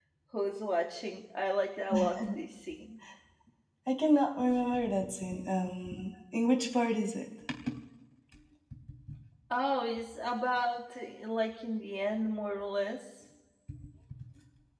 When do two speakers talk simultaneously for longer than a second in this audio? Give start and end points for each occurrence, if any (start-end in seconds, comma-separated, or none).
none